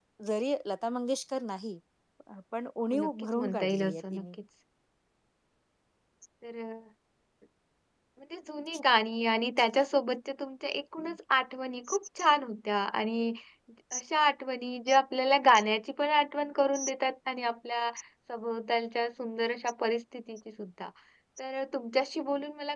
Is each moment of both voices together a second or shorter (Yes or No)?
No